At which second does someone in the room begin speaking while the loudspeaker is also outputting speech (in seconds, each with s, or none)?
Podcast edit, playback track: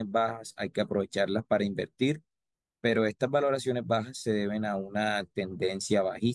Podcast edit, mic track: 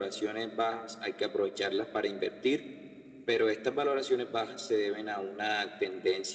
none